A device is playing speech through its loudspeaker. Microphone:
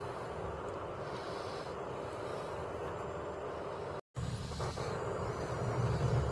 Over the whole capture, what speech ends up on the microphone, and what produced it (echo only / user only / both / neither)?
neither